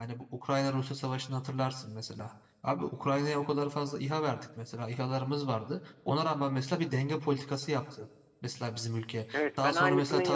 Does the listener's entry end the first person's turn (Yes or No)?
Yes